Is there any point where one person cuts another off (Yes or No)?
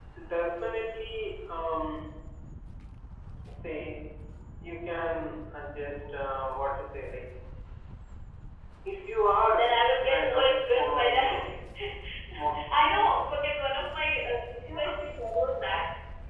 Yes